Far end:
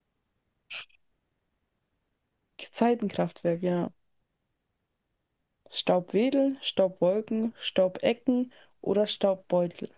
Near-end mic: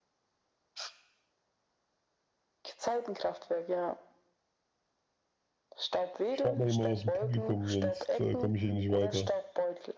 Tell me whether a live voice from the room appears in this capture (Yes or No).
Yes